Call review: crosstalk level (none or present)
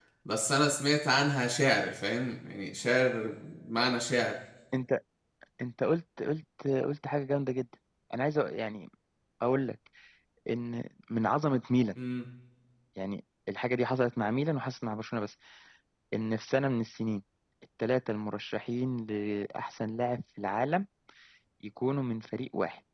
none